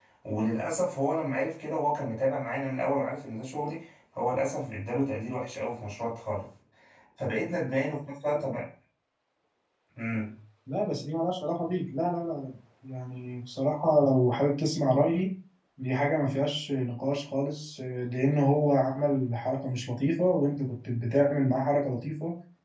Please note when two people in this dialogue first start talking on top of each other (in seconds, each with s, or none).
none